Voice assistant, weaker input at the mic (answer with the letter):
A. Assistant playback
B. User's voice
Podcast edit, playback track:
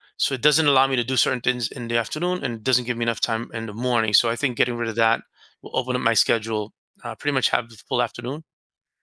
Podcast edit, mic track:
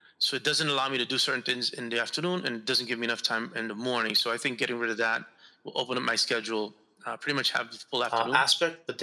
A